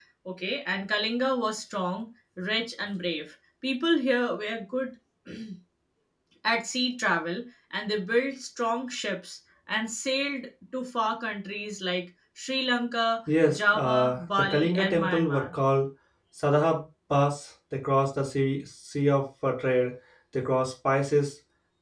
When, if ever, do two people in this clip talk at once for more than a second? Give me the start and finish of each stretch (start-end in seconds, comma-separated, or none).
13.5-15.4